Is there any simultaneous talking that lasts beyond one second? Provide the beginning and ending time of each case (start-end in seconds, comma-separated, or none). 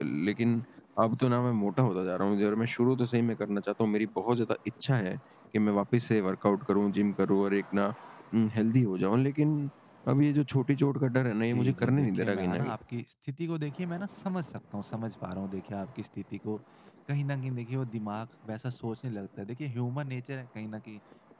11.5-12.8